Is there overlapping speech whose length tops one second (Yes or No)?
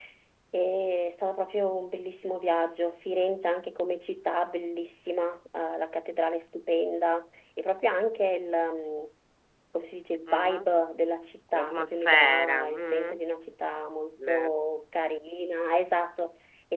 Yes